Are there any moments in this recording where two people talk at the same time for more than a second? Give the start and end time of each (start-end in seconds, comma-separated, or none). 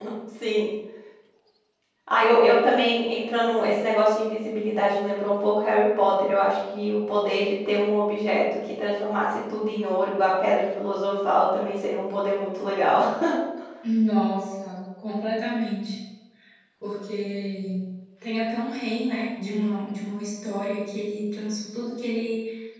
none